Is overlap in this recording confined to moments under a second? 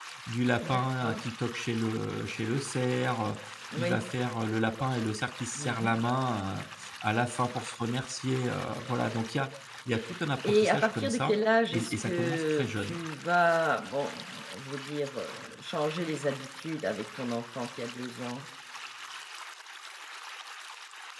No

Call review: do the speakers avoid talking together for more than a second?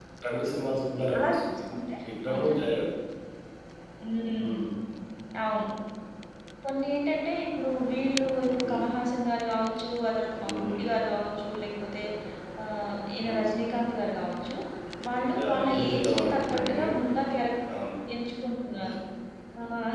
No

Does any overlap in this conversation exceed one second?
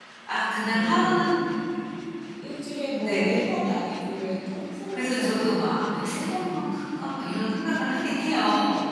Yes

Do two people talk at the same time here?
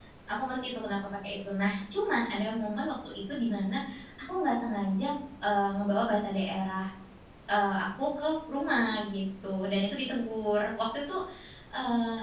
No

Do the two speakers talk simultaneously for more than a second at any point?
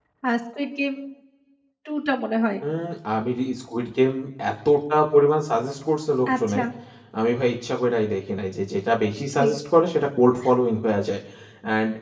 No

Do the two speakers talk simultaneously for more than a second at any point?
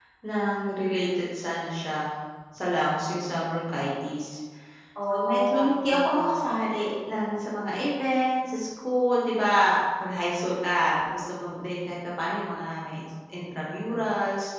Yes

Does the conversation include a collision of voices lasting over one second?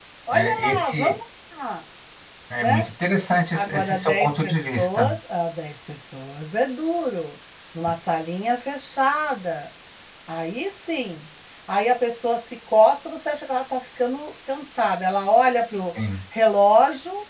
Yes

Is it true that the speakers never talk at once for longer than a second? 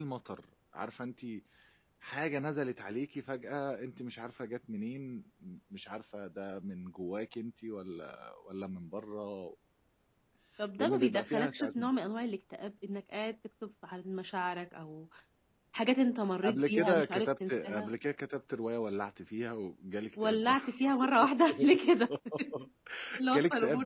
No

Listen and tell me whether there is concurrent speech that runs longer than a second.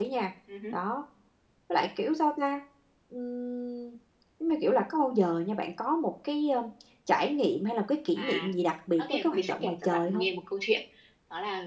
Yes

